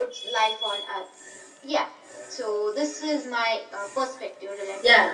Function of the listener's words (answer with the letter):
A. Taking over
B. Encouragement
A